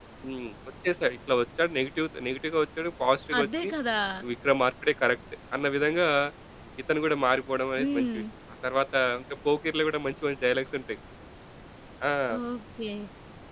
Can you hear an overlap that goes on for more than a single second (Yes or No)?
No